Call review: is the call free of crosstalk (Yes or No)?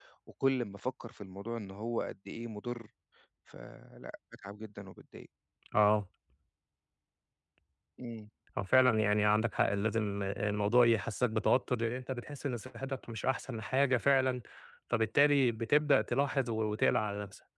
Yes